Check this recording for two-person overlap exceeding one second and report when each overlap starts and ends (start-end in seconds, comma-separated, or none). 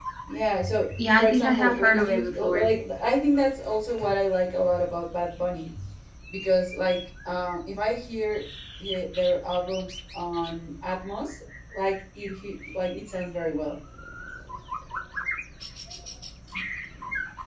1.0-2.7